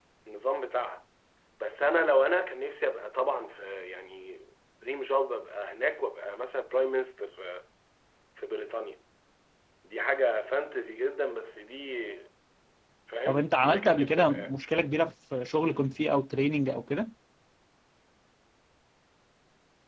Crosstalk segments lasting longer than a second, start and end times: 13.3-14.5

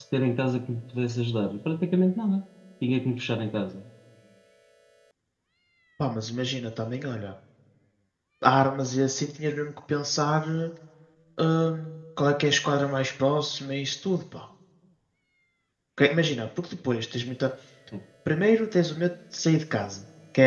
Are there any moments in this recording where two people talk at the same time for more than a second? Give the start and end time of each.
none

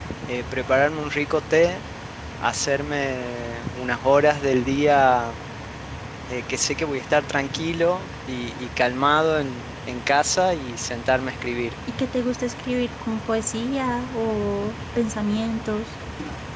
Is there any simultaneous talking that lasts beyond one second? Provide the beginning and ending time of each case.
none

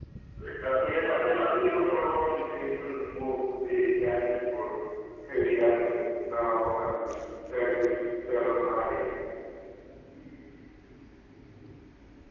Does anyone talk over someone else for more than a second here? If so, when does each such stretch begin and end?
0.8-2.1

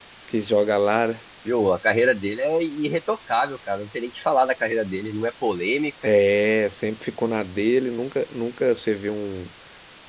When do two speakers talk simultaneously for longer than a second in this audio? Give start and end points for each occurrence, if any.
none

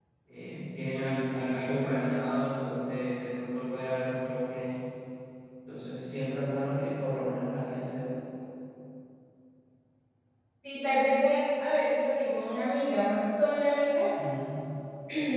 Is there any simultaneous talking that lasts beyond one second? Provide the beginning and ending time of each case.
none

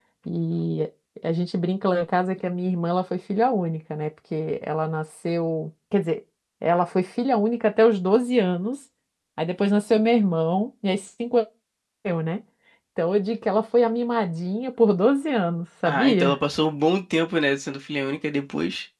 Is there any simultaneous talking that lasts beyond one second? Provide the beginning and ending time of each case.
none

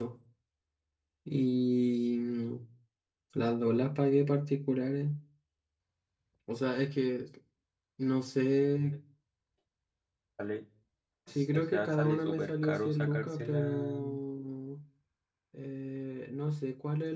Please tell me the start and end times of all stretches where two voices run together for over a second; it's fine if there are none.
11.5-14.0

